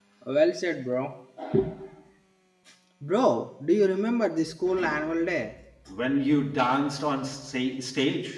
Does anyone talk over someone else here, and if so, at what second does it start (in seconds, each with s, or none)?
none